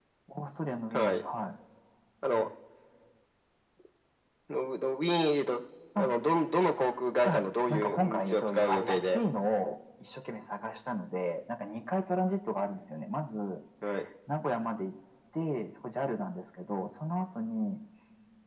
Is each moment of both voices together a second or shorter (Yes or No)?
No